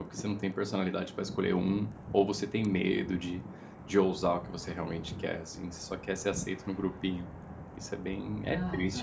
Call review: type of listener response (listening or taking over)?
taking over